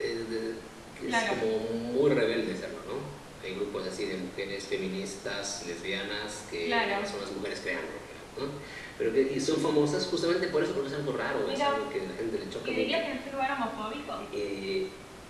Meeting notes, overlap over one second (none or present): none